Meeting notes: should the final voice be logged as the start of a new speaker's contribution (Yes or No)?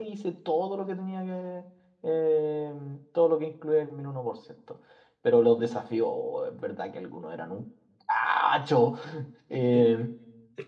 Yes